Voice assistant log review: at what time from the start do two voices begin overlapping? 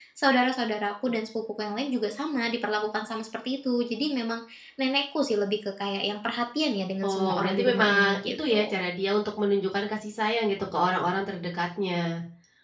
7 s

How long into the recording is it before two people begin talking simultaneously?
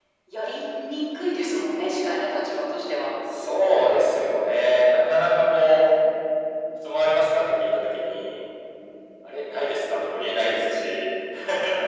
none

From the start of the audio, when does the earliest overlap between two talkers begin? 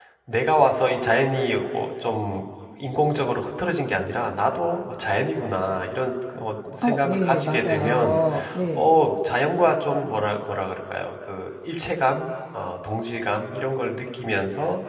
7 s

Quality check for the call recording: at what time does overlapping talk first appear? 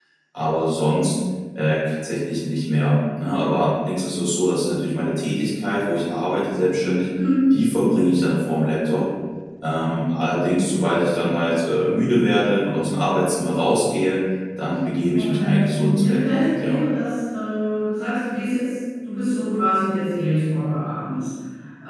15 s

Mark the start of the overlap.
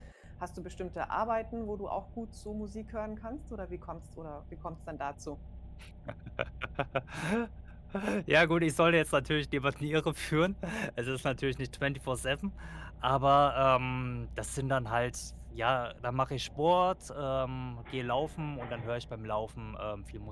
none

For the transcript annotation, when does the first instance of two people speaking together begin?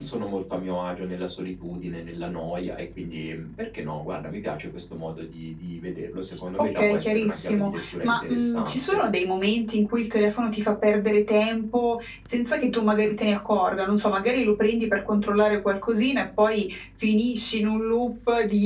7 s

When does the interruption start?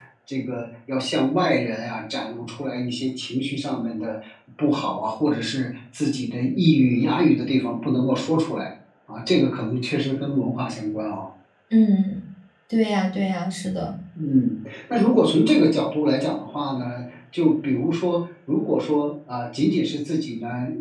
none

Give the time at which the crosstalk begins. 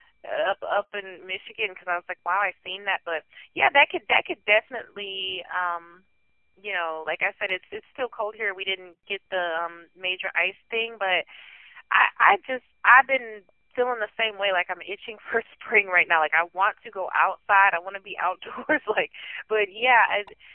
none

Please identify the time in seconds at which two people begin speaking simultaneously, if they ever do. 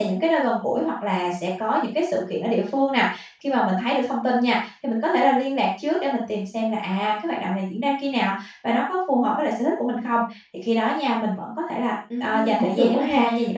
12 s

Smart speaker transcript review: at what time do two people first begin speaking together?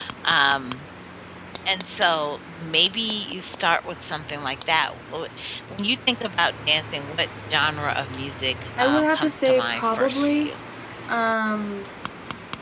9 s

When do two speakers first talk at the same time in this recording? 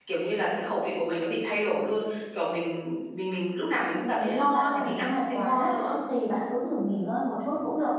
4 s

